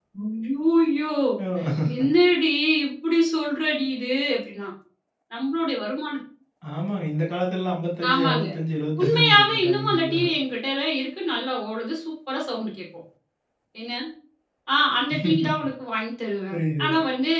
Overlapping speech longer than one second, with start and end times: 9.0-10.2

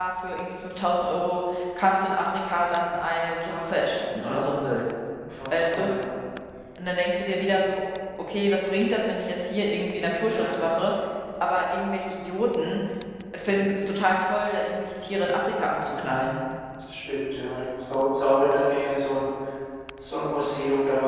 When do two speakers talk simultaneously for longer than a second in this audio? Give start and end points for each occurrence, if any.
none

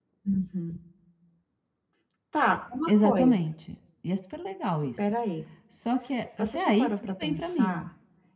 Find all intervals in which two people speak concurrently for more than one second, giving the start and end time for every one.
6.4-7.8

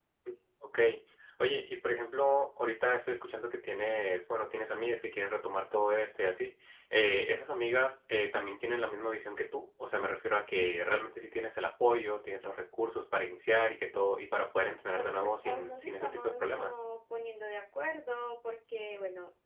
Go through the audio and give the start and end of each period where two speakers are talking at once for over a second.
14.9-16.7

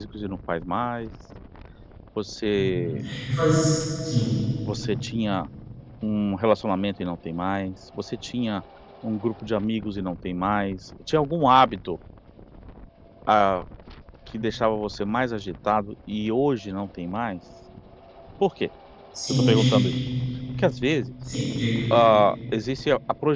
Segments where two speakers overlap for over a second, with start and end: none

